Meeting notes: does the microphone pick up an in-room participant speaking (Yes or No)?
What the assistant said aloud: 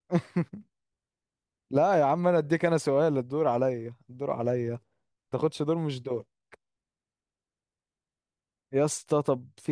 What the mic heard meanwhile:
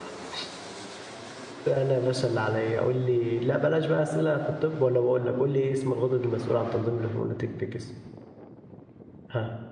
Yes